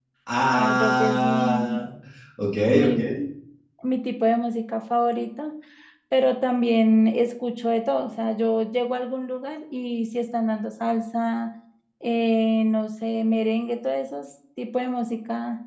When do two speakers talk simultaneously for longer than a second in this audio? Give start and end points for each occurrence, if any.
0.5-1.8

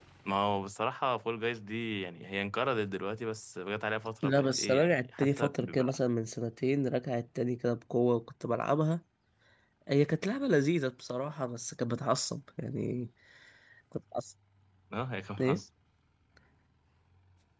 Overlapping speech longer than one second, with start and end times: 4.2-6.0

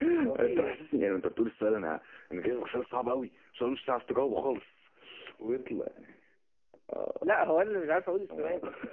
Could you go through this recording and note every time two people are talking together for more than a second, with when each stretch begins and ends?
none

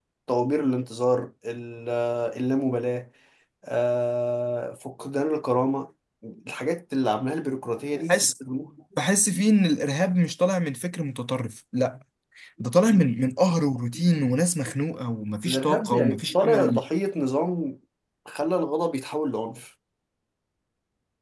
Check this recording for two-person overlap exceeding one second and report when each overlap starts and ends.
15.4-16.8

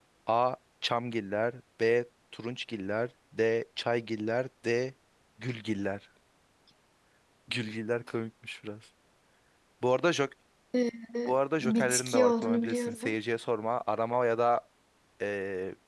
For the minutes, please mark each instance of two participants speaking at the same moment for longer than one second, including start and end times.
11.6-13.1

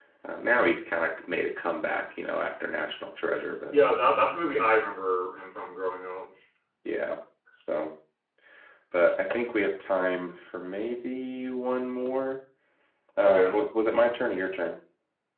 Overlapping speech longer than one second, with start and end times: none

